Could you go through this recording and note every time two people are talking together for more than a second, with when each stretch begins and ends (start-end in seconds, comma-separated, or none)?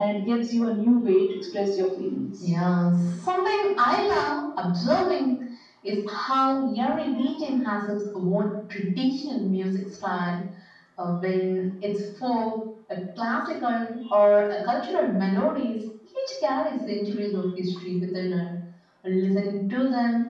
none